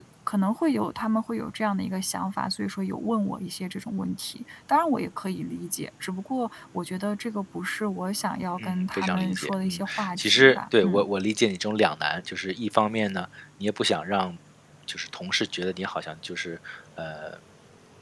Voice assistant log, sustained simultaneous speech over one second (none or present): present